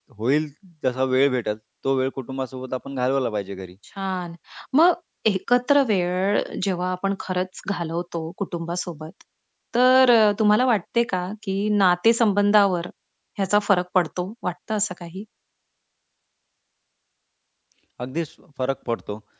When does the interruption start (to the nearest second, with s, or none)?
none